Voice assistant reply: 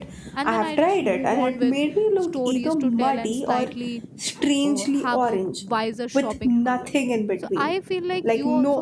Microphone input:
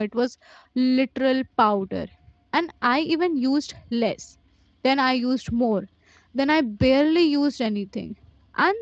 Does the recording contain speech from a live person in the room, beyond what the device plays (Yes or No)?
Yes